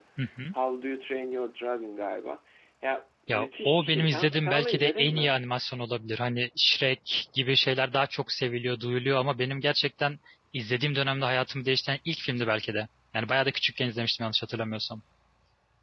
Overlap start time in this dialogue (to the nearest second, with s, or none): 3 s